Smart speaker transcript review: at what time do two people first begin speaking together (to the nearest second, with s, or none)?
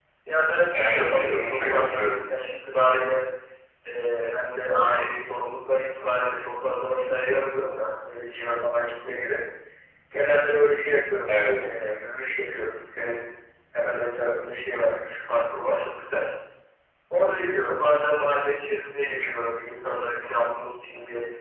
1 s